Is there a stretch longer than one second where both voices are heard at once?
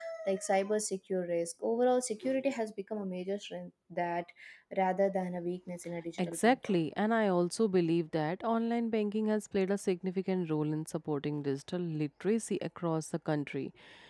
No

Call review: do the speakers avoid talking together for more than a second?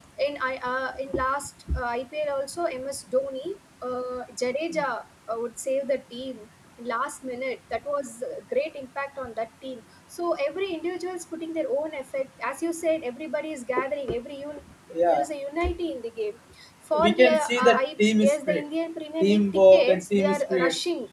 No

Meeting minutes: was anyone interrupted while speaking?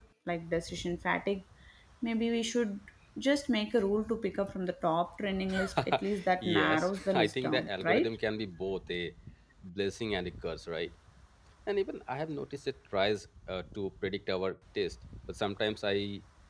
Yes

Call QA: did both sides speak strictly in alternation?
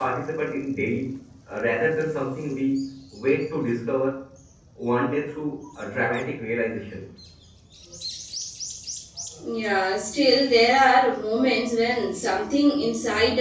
Yes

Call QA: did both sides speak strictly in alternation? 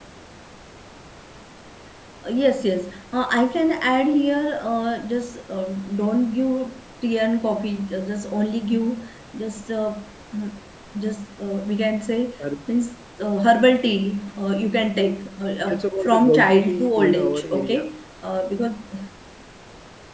No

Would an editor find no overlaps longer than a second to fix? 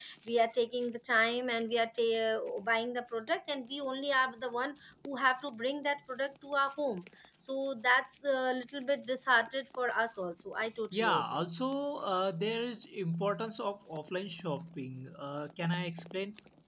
Yes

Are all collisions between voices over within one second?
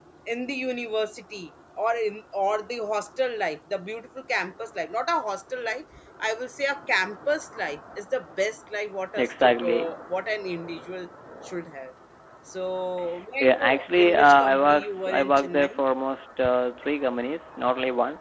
No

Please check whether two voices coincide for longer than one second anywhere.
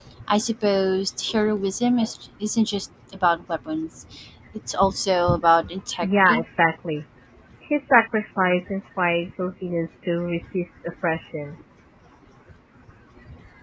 No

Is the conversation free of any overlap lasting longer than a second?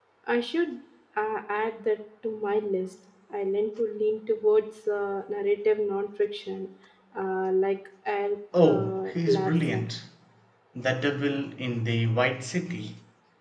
No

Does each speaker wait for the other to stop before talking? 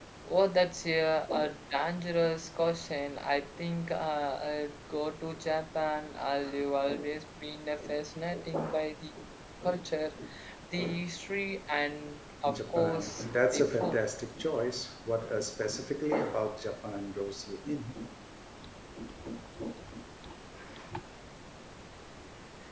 No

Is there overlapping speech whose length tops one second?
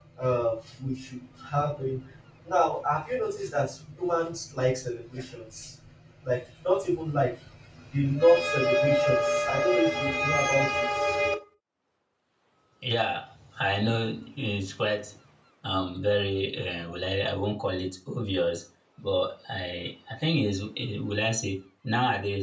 No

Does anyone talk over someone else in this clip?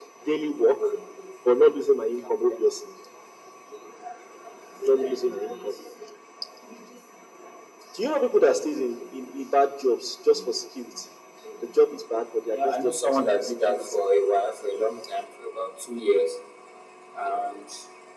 Yes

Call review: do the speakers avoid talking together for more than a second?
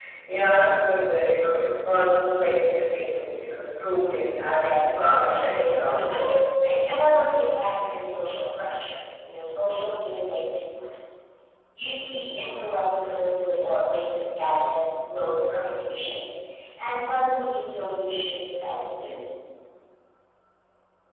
No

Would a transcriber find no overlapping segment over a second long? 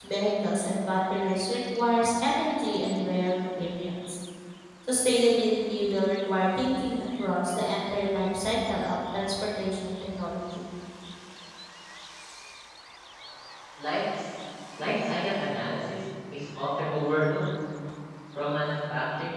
Yes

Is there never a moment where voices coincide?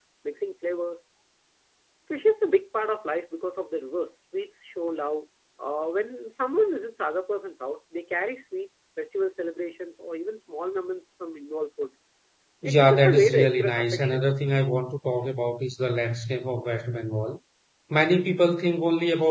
No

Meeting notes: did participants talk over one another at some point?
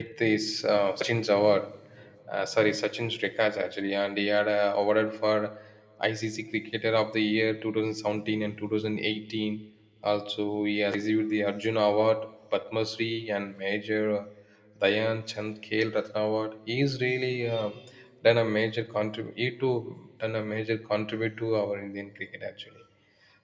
No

